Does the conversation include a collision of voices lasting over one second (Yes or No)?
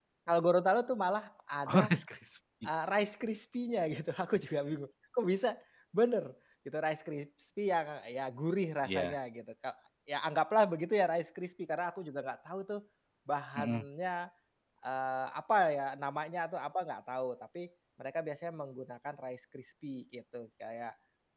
No